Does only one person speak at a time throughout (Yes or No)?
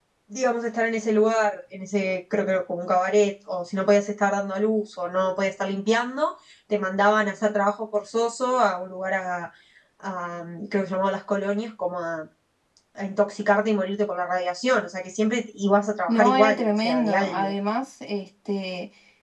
No